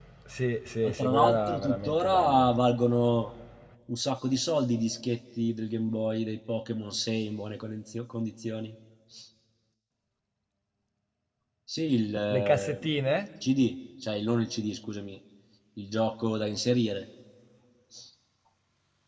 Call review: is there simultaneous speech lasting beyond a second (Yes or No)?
Yes